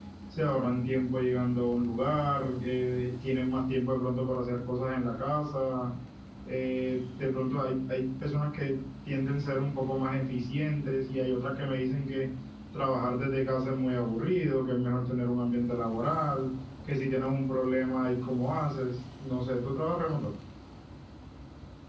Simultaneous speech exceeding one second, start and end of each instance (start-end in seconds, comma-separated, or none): none